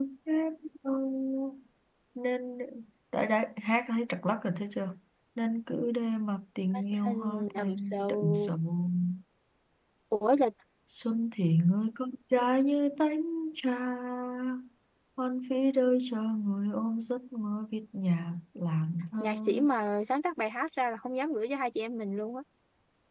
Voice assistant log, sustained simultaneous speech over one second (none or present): present